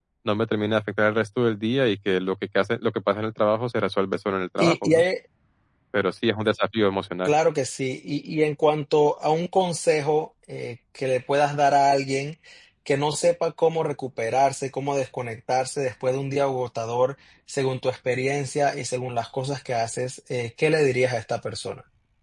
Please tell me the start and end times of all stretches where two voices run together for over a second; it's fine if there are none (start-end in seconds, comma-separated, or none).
none